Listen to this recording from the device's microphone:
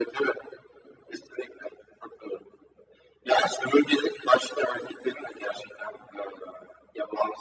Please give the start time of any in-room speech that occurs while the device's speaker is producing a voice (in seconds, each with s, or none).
none